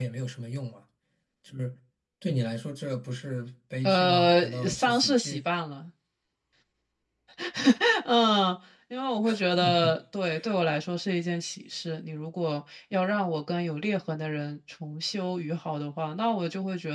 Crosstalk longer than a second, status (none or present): present